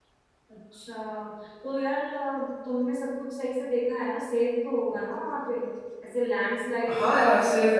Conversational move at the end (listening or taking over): taking over